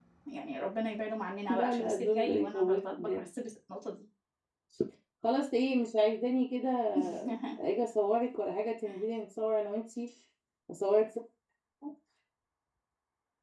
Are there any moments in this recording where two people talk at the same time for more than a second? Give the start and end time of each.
1.5-3.3

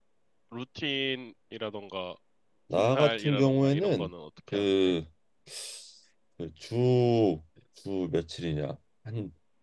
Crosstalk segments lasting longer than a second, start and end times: 2.8-4.1

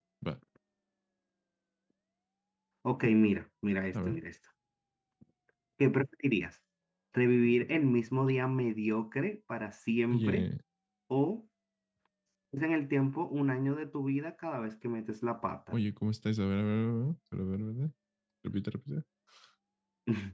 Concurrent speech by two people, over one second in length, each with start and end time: none

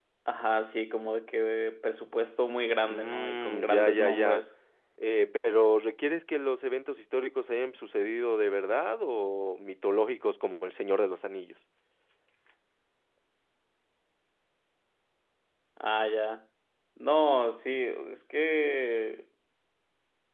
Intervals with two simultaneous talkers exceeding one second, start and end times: 2.9-4.4

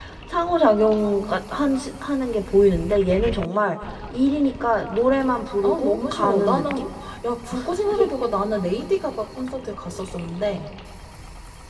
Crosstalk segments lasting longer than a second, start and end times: 5.6-6.9

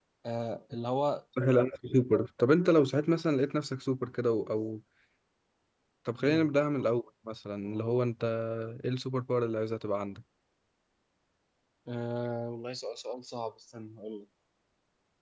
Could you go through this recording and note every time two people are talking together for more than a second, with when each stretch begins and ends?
none

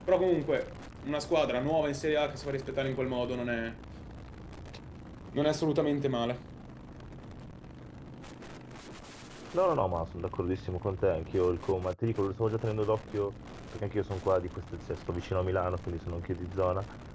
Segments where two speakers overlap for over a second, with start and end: none

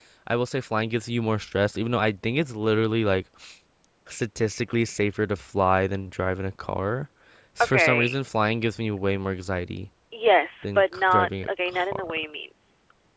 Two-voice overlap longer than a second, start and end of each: 10.6-12.1

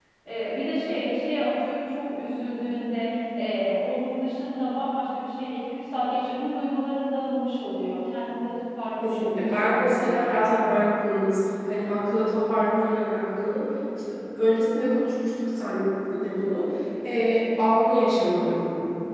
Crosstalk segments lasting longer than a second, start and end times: 9.0-10.3

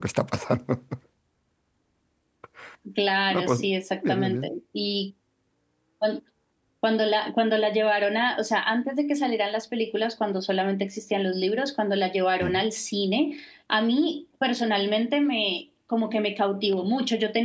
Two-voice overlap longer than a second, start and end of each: none

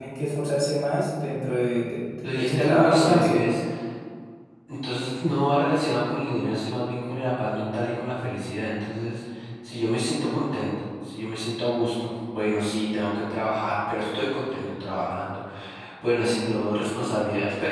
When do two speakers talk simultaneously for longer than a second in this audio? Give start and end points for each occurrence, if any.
2.2-3.5

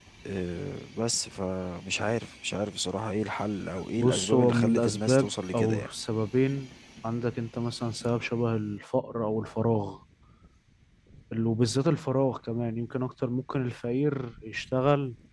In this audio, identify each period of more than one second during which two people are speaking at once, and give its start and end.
4.0-5.9

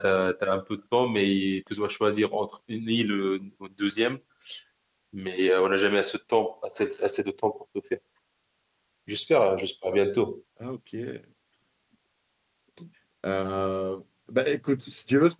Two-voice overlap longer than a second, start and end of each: none

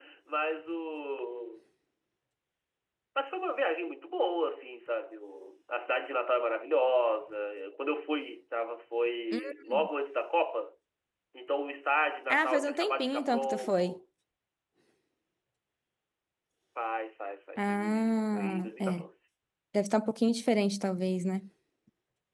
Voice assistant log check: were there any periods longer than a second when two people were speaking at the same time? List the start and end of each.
12.3-13.9, 17.6-19.0

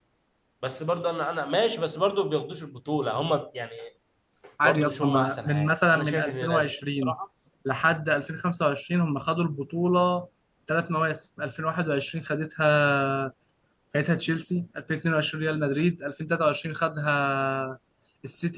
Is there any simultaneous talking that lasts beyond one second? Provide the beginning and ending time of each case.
4.6-7.1

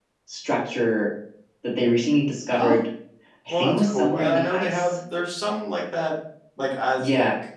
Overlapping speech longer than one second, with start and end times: 3.5-5.0

